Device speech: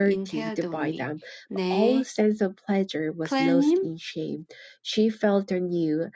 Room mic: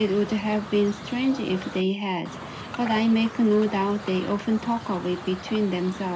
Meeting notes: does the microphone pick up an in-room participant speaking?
Yes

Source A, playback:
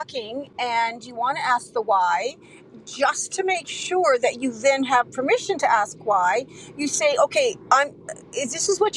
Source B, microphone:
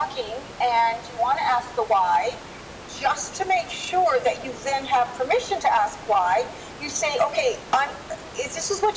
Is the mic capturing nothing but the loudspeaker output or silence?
Yes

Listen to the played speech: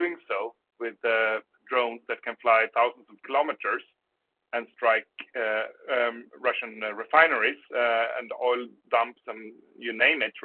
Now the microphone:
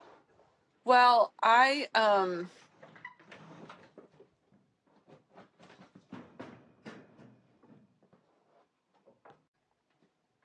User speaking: Yes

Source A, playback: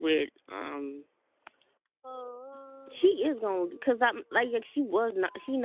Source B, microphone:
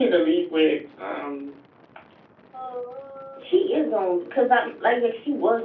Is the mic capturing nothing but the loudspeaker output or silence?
Yes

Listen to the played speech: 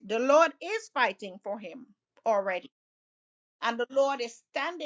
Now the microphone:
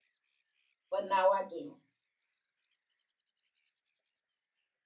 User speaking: Yes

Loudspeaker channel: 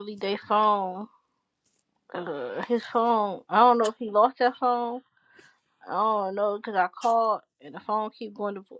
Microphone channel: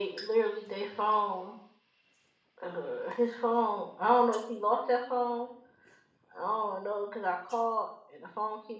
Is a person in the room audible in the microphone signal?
No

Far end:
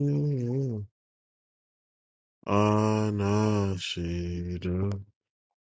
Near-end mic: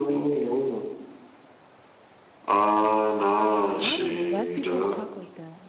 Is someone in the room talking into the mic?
Yes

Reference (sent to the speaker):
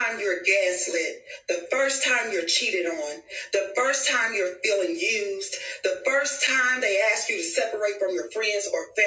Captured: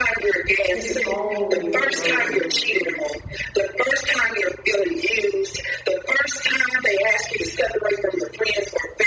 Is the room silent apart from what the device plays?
No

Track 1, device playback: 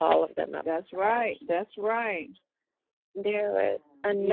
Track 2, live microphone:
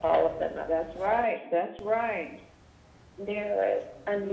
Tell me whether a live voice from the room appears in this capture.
No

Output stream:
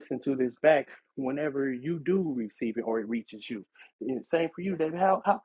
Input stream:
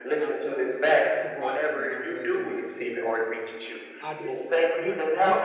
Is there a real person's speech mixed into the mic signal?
Yes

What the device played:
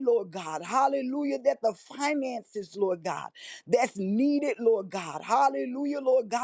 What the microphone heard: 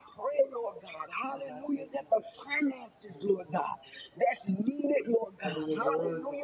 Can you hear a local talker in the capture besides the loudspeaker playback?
Yes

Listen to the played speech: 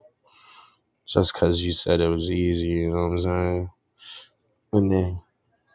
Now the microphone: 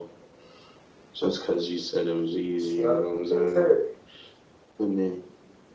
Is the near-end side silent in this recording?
No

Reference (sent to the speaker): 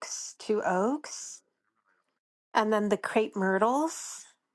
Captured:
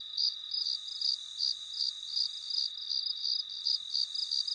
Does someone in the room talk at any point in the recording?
No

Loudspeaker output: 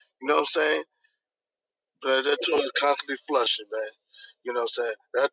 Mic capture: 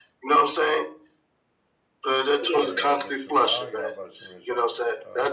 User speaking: Yes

